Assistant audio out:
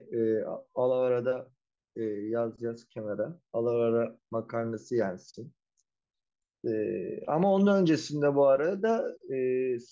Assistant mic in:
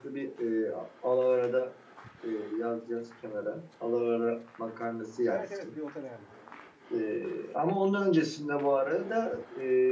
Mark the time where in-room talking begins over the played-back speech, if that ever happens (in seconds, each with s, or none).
5.3 s